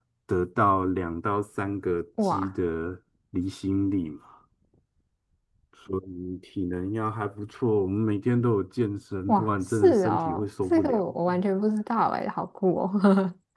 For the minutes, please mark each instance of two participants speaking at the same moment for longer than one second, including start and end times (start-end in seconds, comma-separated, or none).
9.3-11.2